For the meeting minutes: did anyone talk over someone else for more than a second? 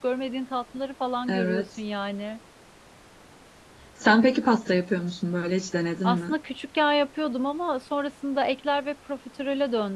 No

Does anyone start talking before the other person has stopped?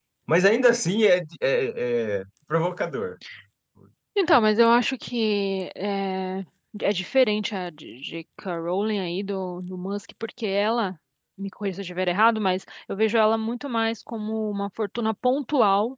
No

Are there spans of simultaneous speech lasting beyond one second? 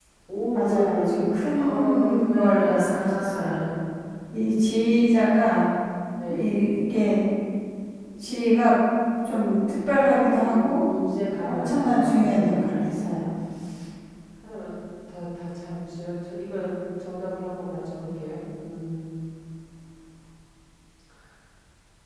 Yes, from 0.5 s

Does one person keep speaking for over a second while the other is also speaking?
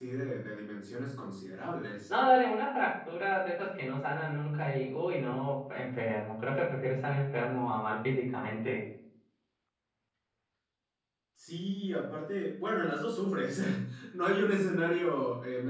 No

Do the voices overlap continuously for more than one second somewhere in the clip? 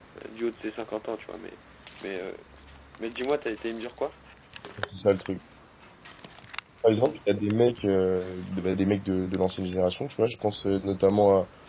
No

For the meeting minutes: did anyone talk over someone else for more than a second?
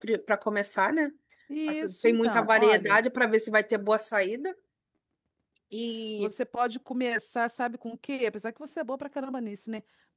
Yes, from 1.7 s

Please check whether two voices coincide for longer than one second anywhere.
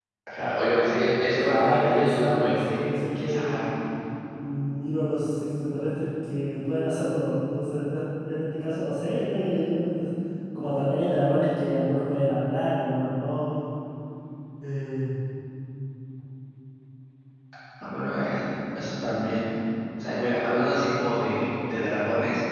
Yes, from 1.5 s

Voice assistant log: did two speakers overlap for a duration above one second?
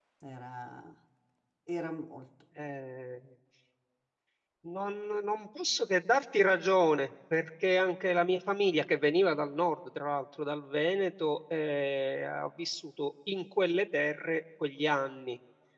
No

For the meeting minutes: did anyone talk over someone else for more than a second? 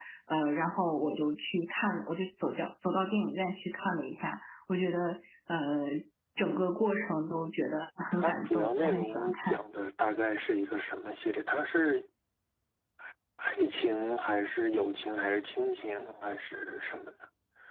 Yes, from 8.1 s

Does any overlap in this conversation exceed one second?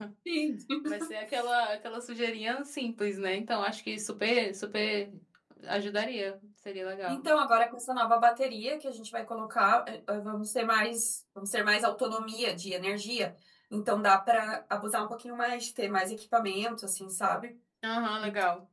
No

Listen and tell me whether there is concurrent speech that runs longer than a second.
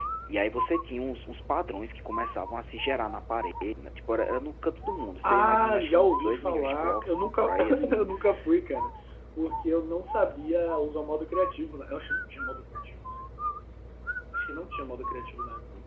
Yes, from 5.2 s

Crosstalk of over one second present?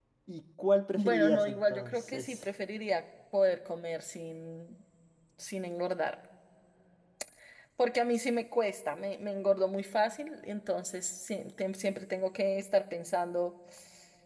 Yes, from 0.9 s

